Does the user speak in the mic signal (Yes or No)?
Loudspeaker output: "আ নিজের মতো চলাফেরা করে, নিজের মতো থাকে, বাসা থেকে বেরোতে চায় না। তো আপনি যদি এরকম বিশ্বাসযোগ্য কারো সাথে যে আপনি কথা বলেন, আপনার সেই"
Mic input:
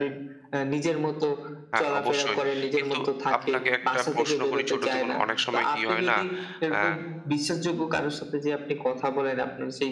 Yes